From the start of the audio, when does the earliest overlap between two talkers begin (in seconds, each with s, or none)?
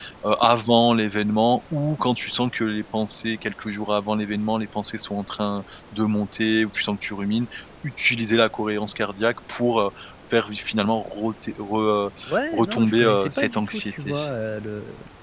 12.5 s